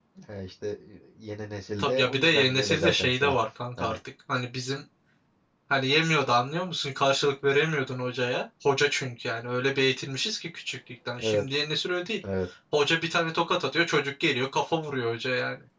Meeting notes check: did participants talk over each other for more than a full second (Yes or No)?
Yes